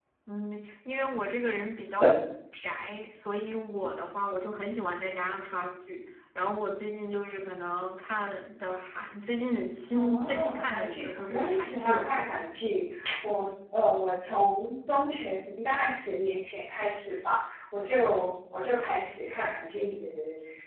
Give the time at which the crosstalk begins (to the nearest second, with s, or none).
10 s